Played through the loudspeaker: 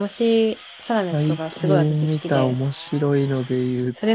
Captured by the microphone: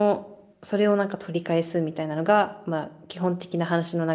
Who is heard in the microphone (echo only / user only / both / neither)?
user only